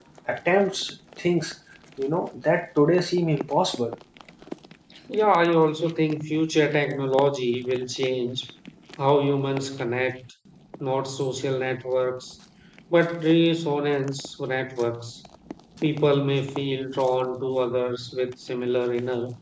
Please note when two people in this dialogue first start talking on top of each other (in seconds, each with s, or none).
none